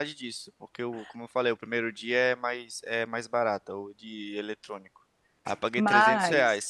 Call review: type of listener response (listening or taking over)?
listening